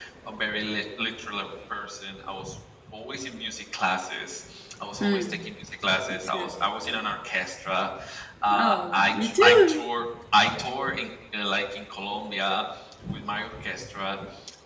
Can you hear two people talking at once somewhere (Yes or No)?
Yes